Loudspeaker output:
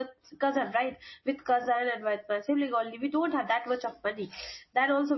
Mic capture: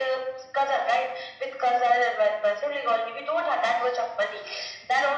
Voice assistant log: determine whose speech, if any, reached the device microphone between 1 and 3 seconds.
echo only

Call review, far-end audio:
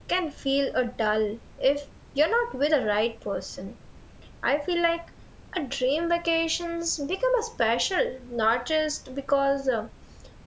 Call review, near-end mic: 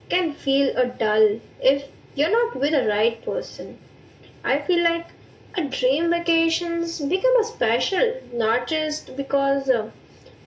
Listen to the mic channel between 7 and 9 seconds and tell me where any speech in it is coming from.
echo only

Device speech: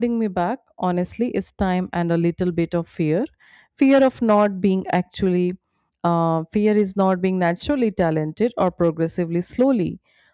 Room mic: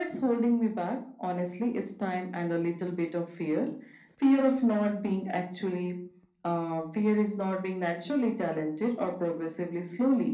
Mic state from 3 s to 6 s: echo only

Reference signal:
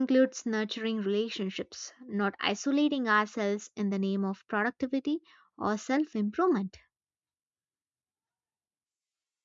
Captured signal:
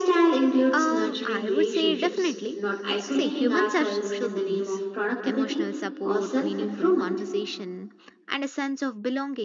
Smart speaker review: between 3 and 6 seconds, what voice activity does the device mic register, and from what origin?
both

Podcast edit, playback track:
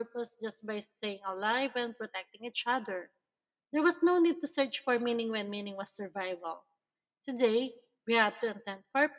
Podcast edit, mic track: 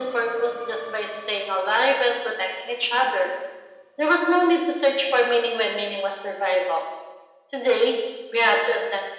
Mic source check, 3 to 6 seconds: echo only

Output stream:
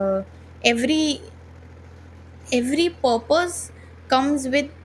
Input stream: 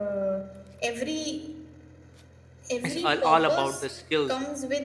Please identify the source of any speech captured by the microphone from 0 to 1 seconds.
echo only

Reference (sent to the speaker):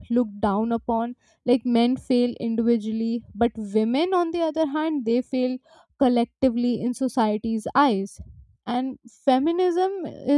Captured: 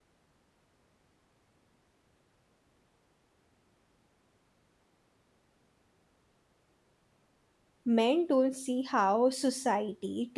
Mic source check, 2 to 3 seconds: neither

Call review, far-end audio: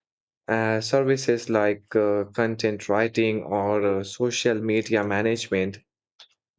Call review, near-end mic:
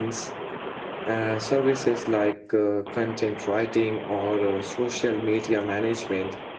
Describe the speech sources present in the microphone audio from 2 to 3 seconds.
echo only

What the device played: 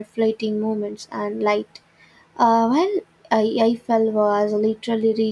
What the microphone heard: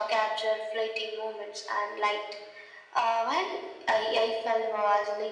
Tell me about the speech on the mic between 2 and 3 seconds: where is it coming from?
echo only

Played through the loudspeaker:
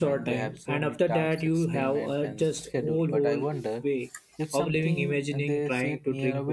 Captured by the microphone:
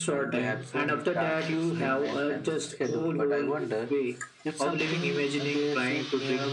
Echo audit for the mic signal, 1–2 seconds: echo only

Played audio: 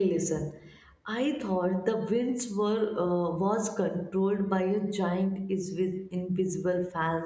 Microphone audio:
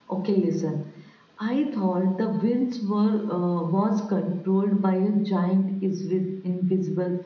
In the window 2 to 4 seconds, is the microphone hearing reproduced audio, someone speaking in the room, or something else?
echo only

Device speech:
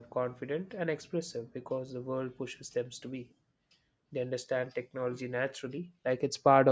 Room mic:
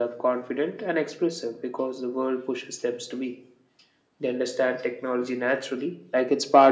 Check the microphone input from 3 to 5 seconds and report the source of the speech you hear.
echo only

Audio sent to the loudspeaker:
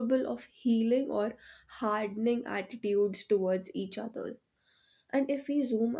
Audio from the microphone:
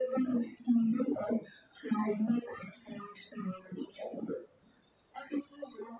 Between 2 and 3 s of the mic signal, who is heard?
echo only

